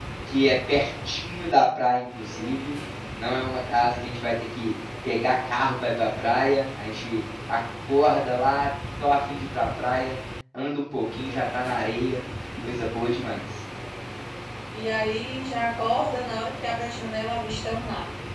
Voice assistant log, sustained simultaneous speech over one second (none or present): none